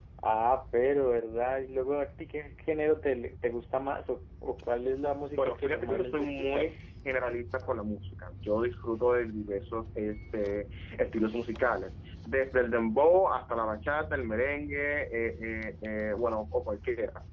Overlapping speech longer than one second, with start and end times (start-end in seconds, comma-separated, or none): 5.3-6.8